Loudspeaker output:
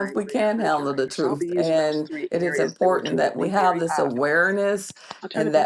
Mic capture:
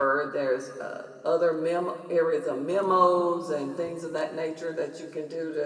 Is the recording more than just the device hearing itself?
Yes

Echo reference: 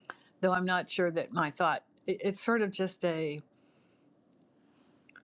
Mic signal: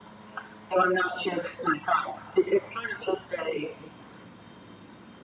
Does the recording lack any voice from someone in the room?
Yes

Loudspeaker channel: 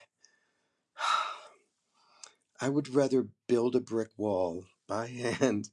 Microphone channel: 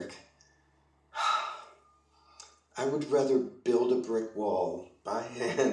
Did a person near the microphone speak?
No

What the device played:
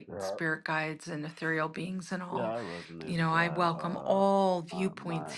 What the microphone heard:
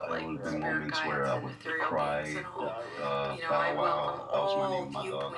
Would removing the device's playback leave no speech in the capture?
No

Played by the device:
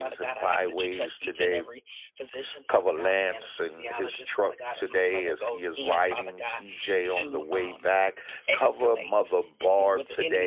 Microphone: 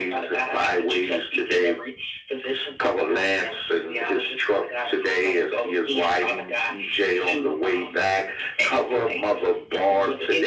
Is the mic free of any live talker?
Yes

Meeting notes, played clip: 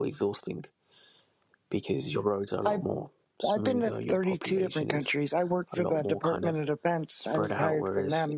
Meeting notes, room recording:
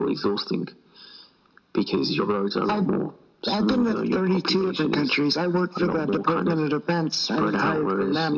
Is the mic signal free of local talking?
Yes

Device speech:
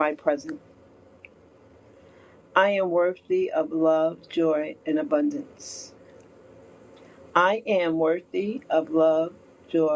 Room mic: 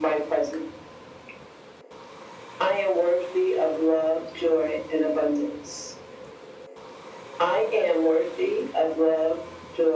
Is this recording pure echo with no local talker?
Yes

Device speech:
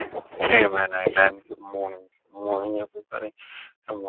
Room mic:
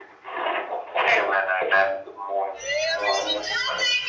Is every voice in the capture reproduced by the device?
No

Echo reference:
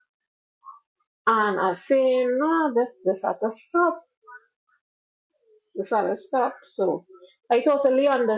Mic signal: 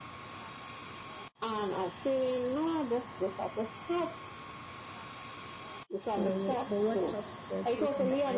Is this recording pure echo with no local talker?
No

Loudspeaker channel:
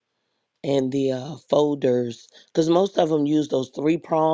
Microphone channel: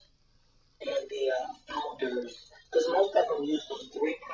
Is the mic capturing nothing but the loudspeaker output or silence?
Yes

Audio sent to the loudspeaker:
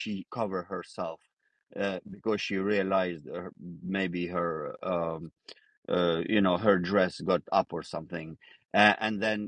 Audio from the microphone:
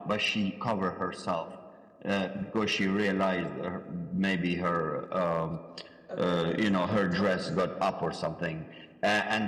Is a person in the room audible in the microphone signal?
Yes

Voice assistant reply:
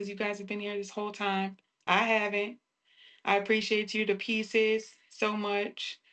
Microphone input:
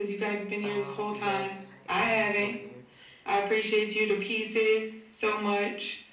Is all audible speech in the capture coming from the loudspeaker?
No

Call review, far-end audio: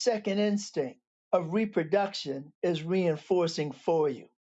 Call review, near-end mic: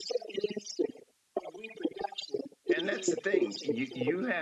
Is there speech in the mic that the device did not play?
Yes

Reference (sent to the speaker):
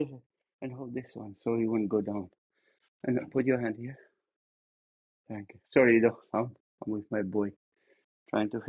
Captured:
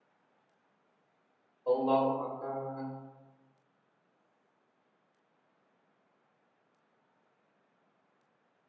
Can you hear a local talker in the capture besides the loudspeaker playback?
Yes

